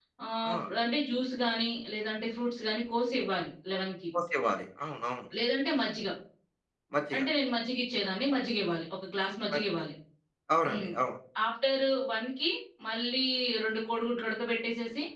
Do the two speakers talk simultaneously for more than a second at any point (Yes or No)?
No